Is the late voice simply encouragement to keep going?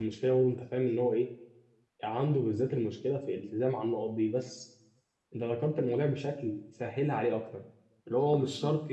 Yes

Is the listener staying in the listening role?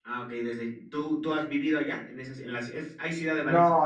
No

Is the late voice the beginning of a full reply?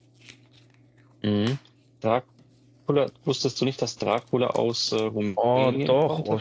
Yes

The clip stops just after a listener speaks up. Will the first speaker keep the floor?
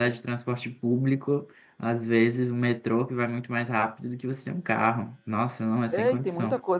No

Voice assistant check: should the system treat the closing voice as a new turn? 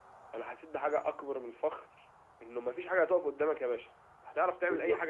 No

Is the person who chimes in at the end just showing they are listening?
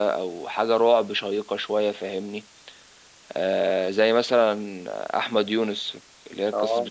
Yes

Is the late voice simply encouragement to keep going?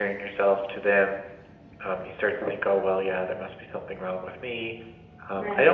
Yes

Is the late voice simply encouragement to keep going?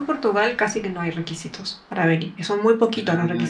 Yes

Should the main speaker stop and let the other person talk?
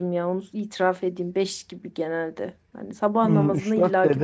Yes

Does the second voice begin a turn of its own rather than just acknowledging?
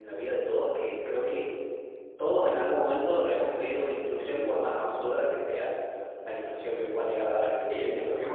Yes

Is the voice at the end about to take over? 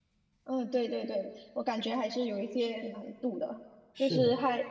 No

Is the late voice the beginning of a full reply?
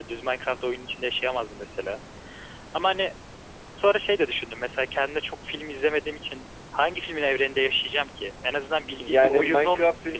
Yes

